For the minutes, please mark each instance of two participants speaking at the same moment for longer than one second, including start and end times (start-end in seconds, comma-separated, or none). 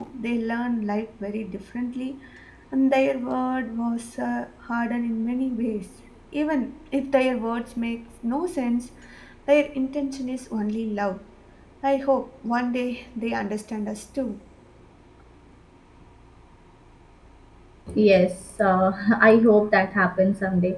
none